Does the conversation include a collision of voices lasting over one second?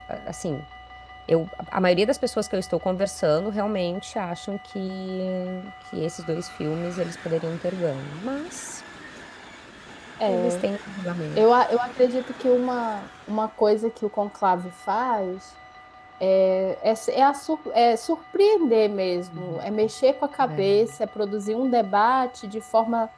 No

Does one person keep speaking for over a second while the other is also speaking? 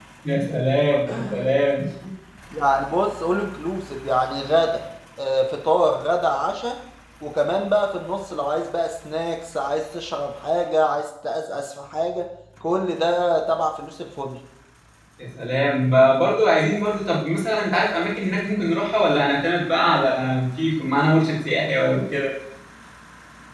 No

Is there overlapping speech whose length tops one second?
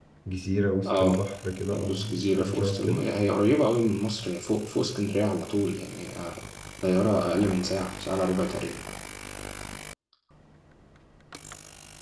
Yes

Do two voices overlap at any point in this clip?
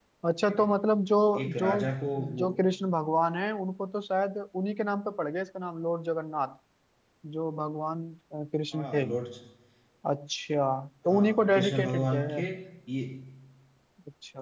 Yes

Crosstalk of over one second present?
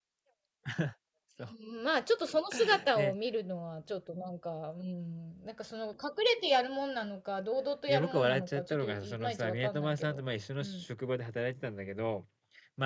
Yes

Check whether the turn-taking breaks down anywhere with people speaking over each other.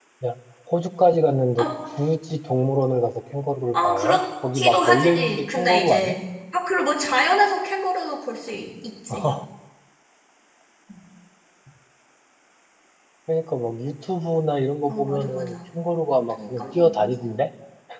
Yes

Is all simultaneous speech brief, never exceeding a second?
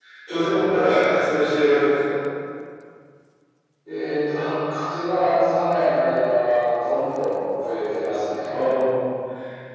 Yes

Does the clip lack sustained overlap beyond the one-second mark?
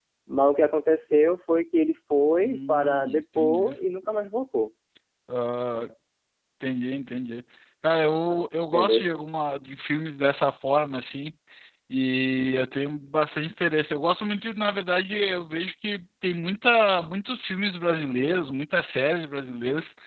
No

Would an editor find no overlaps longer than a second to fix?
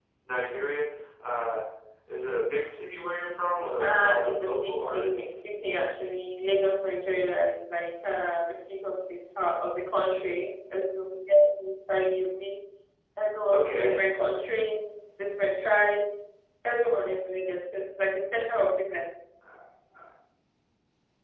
No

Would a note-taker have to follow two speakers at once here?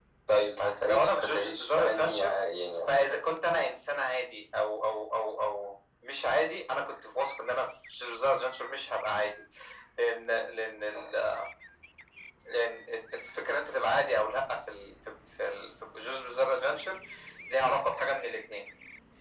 Yes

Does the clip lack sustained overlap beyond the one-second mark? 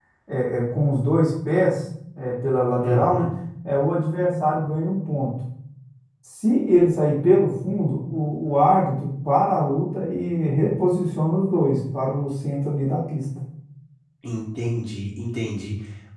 Yes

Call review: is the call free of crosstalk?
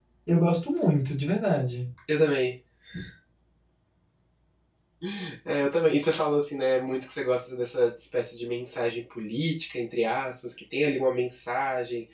Yes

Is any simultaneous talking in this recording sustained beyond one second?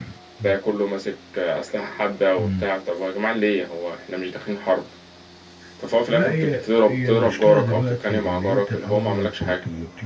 Yes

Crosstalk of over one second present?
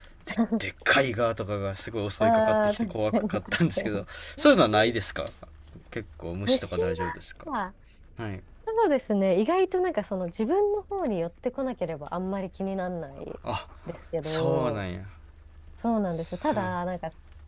Yes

